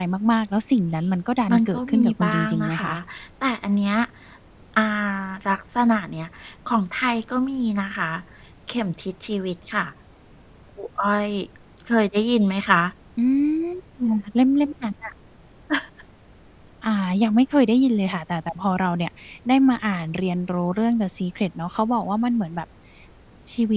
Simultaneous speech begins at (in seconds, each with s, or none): 1.5 s